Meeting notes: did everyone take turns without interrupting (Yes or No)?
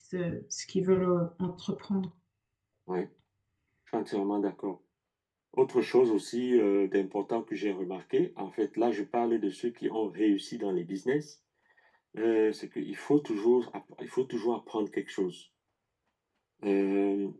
Yes